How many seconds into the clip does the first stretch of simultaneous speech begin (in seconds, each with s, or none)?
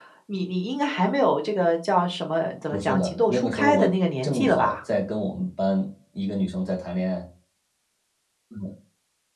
2.7 s